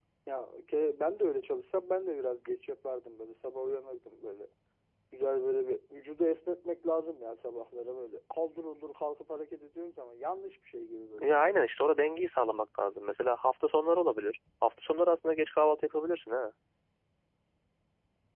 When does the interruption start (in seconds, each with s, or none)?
none